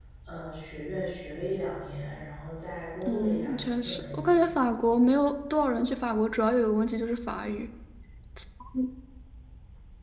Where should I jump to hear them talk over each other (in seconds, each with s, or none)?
3.1 s